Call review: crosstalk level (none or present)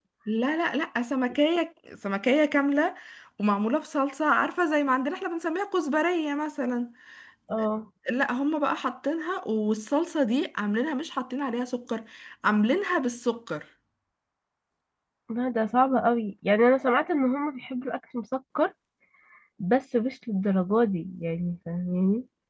none